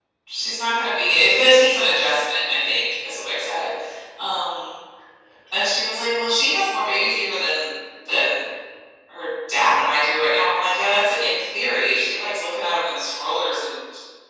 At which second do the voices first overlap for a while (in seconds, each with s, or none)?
none